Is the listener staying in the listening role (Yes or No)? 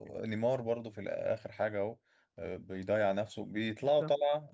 Yes